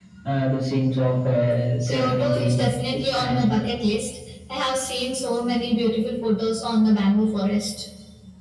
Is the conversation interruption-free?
No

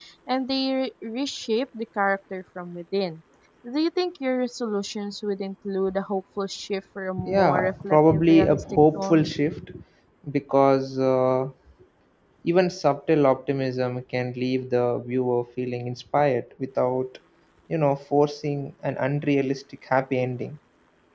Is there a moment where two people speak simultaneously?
Yes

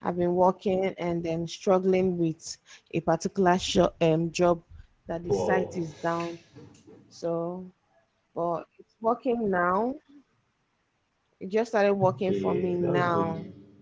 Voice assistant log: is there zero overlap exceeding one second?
No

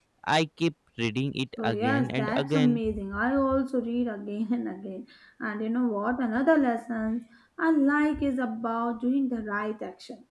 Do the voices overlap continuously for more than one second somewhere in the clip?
Yes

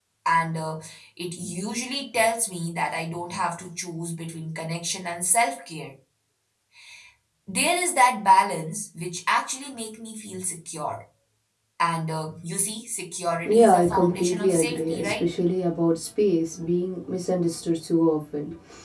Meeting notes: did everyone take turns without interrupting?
No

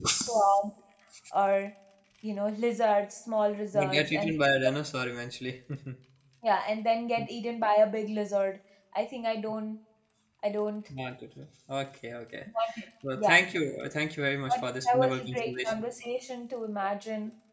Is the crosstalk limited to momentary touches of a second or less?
No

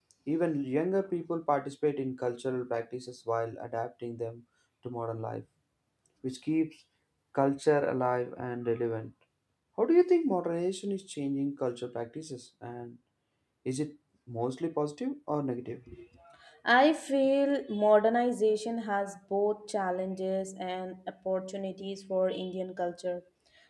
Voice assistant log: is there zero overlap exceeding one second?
Yes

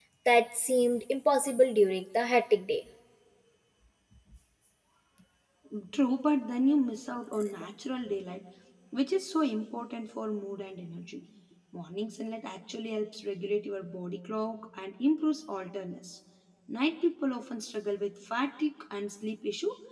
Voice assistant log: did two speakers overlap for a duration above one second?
No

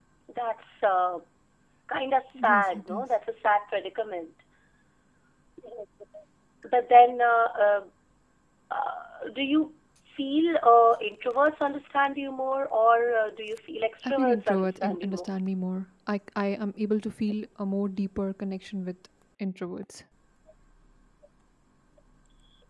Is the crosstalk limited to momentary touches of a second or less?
No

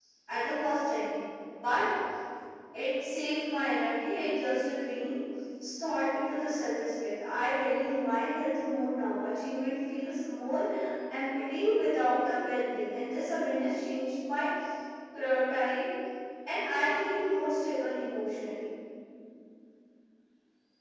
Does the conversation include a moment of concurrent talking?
No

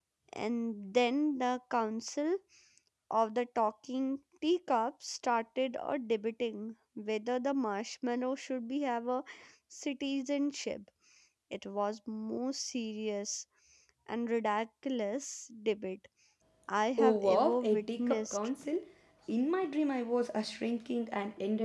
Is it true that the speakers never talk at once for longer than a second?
No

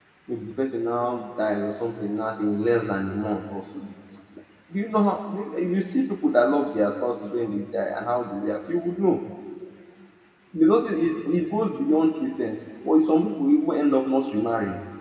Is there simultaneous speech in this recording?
No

